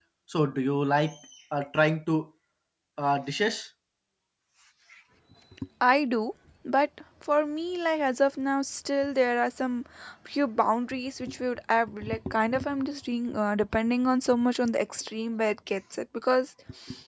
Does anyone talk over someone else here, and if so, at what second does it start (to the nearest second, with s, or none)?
none